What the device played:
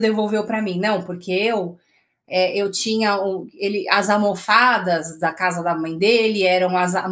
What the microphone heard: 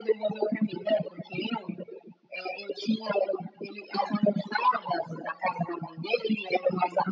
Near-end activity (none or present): none